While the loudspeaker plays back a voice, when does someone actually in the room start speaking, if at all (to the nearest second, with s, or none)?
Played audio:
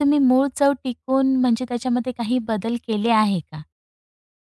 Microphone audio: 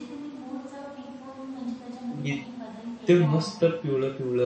2 s